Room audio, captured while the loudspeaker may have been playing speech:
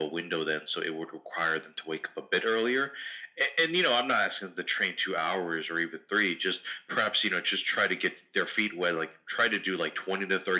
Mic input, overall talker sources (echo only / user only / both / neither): echo only